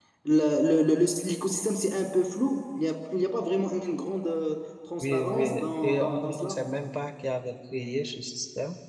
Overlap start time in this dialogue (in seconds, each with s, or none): 5.0 s